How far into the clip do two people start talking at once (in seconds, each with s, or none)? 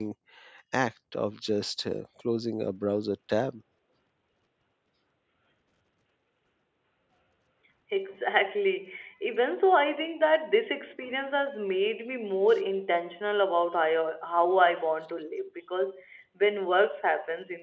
none